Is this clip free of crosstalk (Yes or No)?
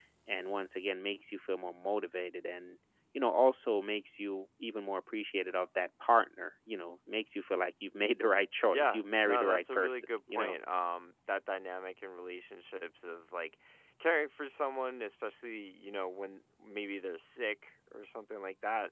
No